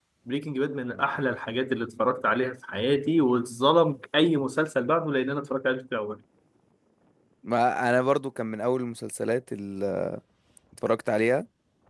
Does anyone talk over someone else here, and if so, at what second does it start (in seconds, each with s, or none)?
none